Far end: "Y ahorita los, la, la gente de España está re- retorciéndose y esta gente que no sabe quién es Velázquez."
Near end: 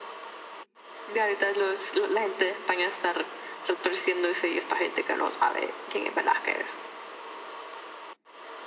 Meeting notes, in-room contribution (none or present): none